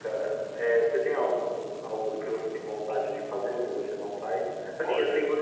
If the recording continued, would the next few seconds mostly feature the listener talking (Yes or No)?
No